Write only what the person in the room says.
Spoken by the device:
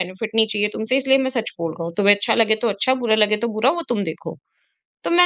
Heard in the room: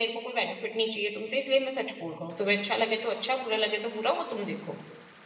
none

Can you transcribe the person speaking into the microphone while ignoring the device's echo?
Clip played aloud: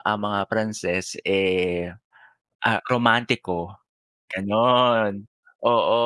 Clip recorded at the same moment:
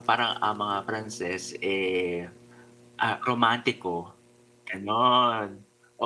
none

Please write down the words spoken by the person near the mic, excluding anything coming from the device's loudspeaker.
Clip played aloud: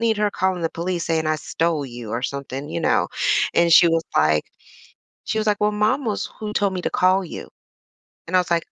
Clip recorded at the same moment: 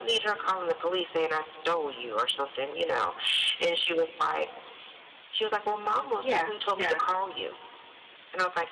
yeah, yeah.

